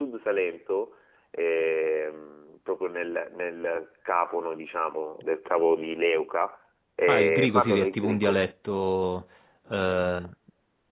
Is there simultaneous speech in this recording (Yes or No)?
Yes